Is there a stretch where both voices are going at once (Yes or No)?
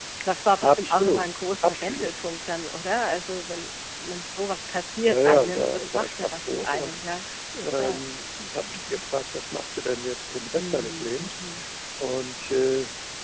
Yes